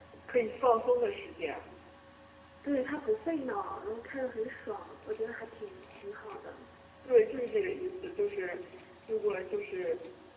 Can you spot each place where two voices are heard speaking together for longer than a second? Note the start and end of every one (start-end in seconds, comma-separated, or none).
none